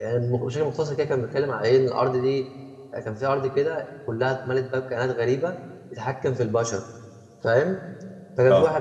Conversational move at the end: listening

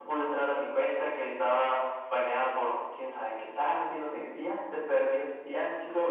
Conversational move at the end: taking over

